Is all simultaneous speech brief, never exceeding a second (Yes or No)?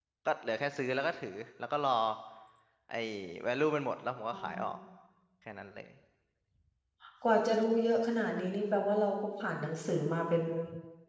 Yes